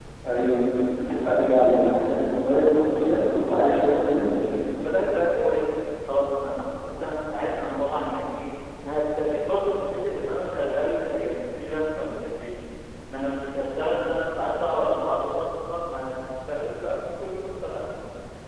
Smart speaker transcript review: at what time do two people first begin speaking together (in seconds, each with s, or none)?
2.7 s